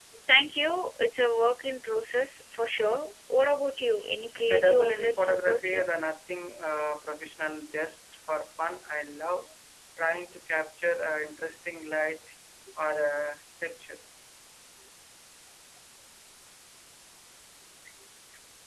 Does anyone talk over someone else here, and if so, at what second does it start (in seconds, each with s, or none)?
4.5 s